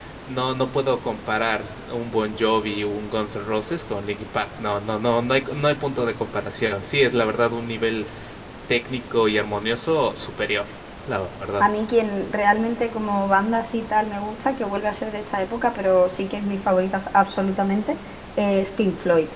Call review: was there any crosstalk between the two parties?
No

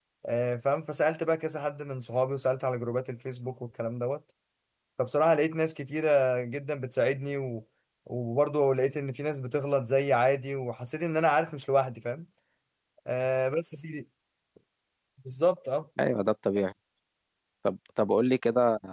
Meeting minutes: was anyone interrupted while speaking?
No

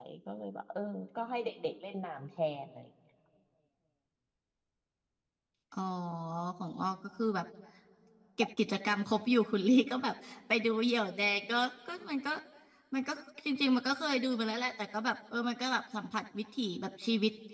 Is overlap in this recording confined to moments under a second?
Yes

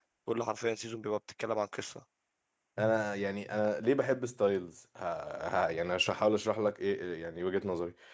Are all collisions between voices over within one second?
Yes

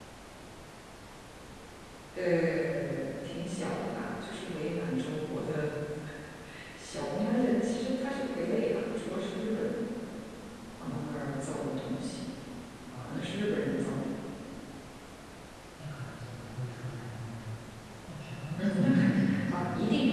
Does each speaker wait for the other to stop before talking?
No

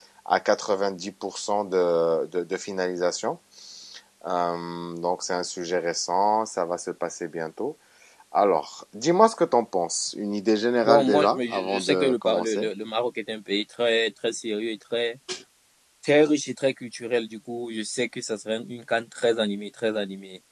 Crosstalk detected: Yes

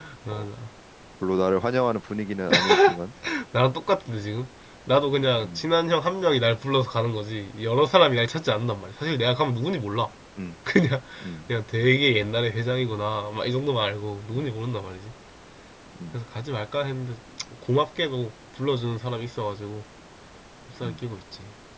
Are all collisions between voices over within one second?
Yes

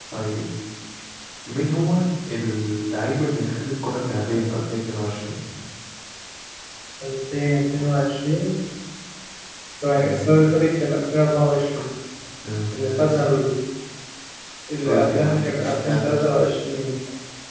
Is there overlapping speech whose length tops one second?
Yes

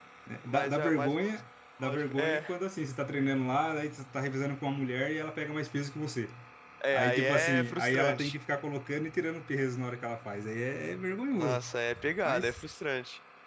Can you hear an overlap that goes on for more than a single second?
Yes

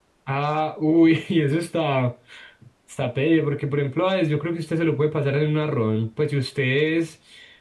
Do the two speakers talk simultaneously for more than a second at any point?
No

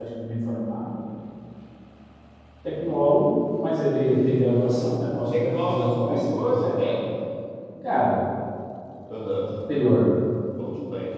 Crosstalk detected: Yes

